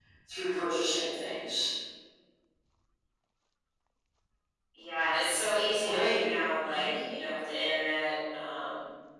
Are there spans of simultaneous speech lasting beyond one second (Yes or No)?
No